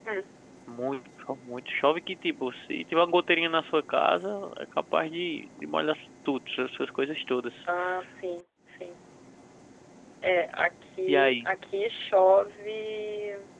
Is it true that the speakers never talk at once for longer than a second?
Yes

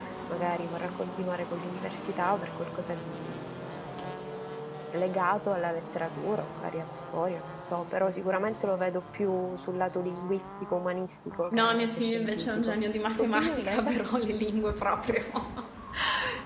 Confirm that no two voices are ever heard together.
No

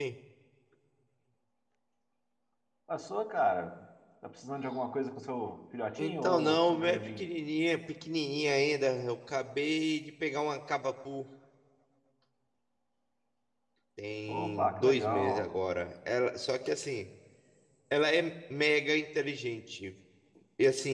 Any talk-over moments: Yes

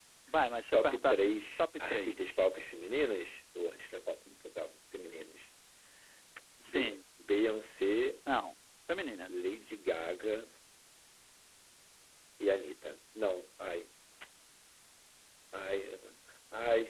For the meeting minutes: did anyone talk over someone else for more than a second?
Yes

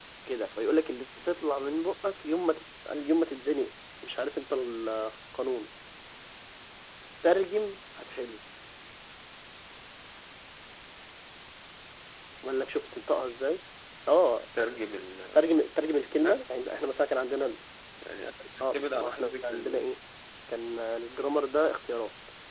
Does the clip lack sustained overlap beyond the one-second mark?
No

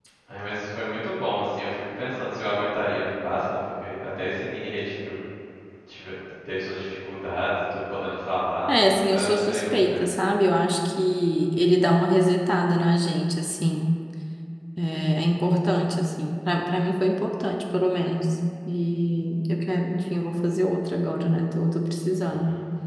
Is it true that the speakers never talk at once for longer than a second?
No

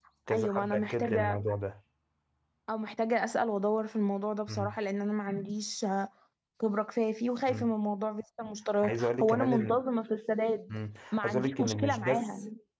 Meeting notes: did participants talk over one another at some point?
Yes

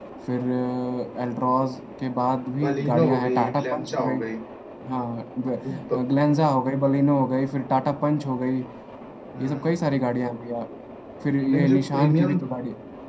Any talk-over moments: Yes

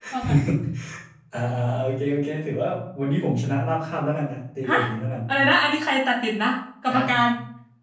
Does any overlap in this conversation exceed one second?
No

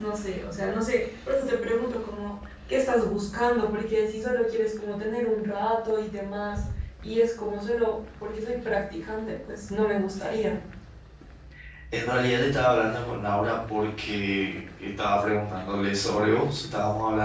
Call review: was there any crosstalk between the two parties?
No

